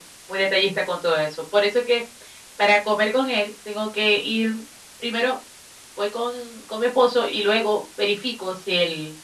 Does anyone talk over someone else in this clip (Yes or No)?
No